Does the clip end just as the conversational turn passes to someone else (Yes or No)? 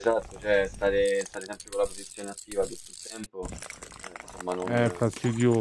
Yes